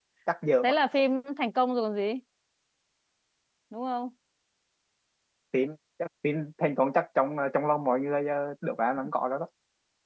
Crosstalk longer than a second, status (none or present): none